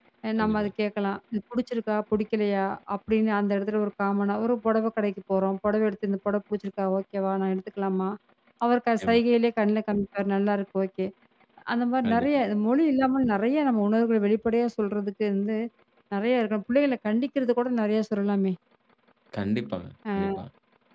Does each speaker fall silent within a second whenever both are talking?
Yes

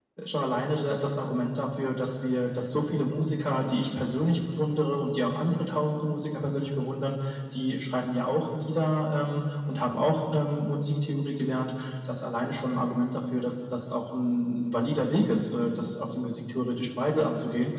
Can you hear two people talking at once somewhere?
No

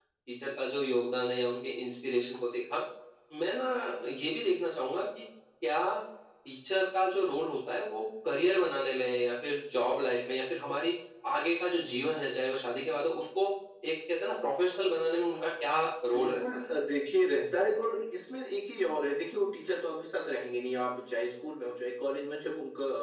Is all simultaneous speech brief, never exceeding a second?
Yes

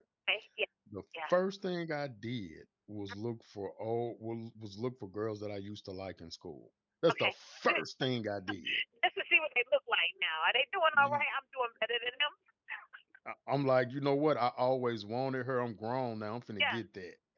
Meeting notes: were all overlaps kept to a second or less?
Yes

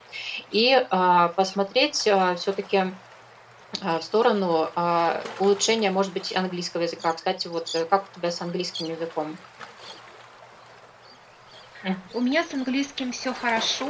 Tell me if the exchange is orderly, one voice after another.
Yes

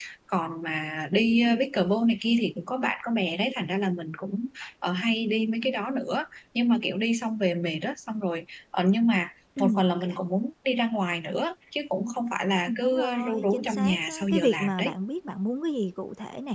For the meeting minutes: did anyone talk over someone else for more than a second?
Yes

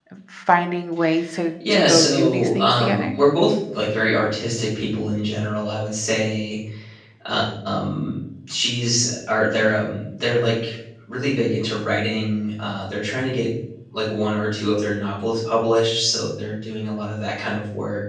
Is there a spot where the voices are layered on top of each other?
Yes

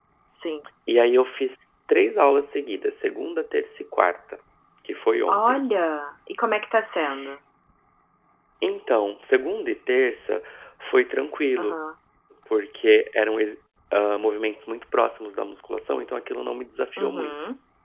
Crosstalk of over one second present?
No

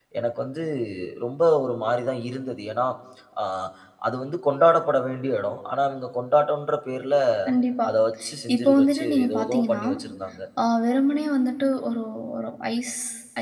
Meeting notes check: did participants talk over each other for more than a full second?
Yes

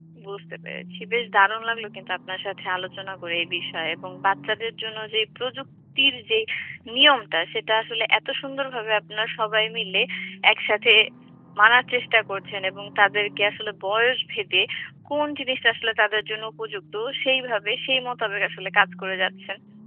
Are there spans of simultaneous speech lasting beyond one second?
No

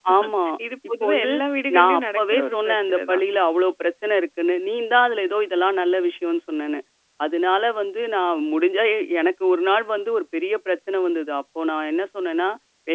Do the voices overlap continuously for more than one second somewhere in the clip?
Yes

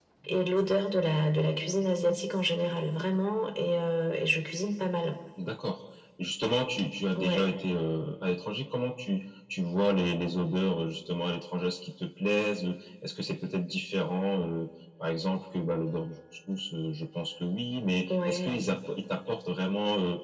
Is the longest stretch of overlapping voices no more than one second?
Yes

